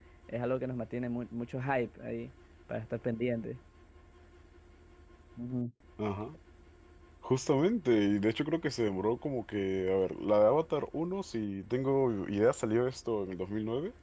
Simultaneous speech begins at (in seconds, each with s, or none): none